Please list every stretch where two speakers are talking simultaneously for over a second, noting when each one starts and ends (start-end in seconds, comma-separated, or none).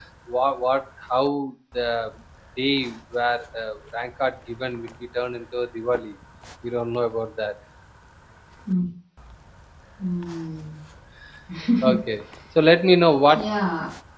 none